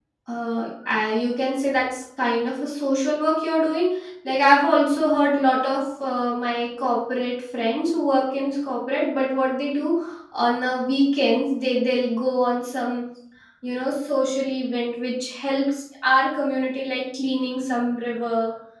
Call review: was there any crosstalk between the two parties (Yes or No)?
No